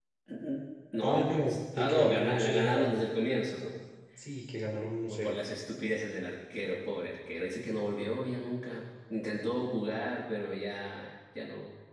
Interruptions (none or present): present